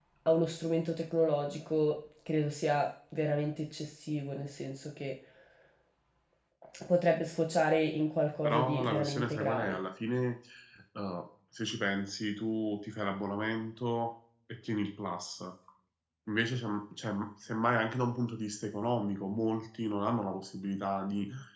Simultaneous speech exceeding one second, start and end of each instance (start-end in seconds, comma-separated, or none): 8.4-9.8